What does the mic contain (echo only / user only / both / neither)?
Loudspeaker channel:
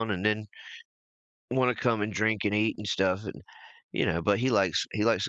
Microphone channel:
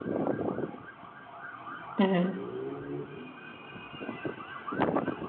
user only